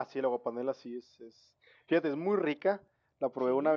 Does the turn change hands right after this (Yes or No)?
No